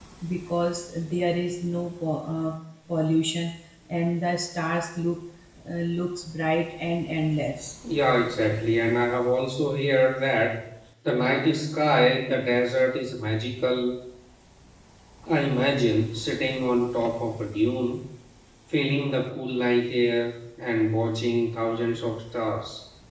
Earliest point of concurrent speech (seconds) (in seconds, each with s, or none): none